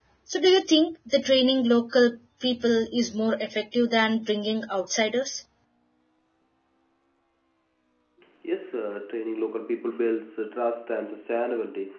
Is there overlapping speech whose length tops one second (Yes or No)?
No